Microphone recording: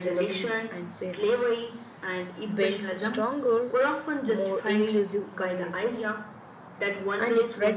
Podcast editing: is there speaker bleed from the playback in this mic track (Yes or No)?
Yes